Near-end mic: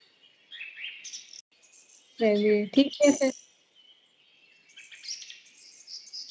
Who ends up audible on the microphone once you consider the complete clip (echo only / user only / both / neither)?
user only